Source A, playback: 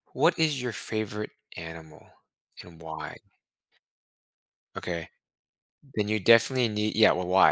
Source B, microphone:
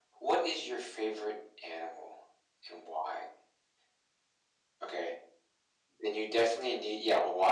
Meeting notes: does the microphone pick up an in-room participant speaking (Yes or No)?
No